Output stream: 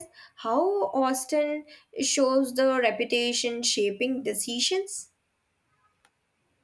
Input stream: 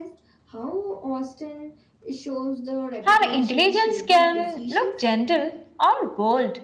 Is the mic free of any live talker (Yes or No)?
No